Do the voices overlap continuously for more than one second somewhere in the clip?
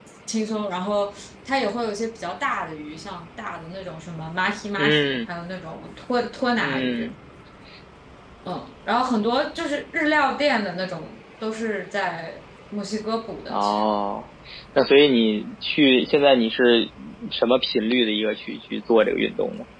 No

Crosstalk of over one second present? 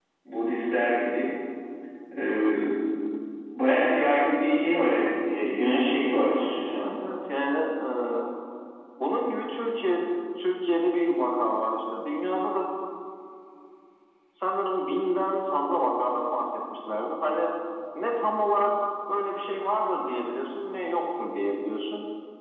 No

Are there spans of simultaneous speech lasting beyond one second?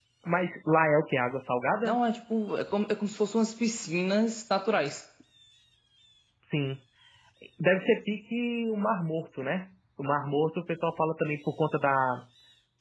No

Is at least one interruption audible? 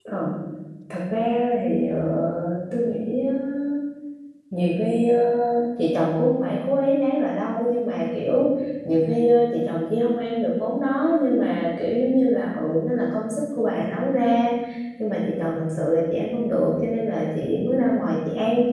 No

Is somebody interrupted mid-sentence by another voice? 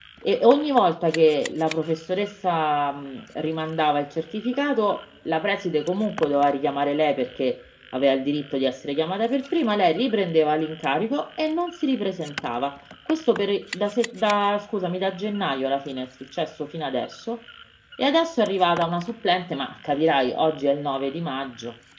No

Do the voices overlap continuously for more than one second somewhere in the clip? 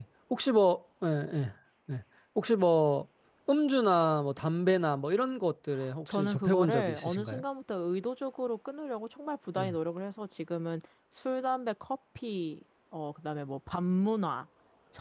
Yes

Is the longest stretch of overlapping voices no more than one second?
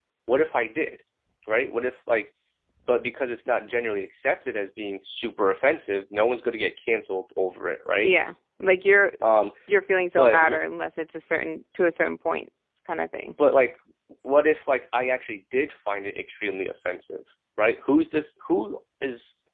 Yes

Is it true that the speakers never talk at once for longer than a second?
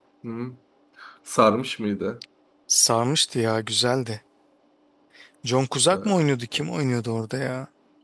Yes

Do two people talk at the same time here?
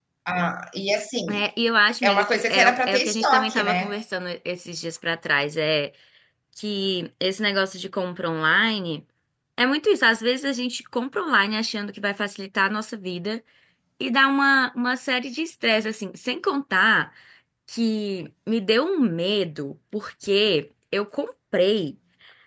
Yes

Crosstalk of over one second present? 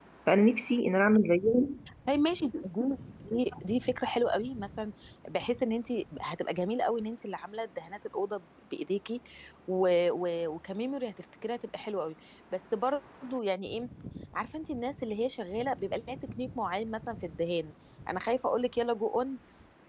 No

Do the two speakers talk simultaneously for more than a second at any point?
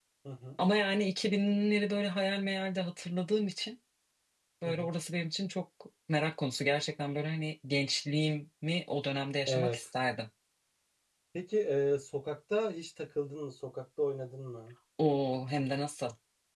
No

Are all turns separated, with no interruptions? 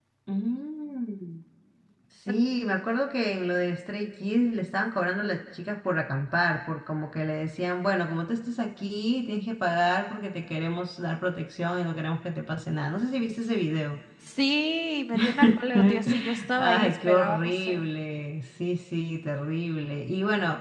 No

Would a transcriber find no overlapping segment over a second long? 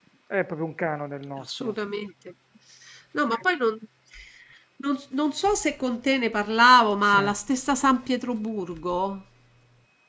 Yes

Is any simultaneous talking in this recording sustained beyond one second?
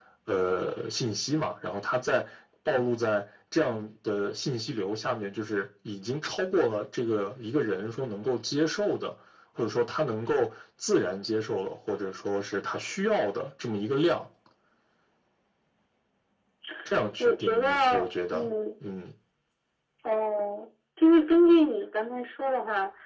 Yes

